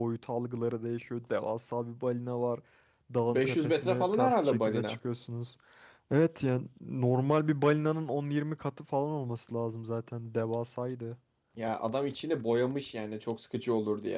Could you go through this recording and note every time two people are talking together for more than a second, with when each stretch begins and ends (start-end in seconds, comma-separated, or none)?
3.3-5.0